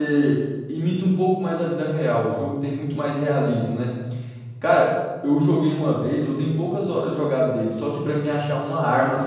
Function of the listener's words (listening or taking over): listening